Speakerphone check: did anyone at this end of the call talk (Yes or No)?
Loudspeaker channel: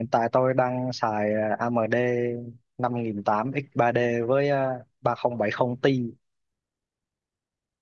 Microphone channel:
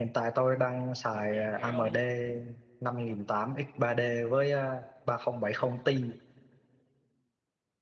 Yes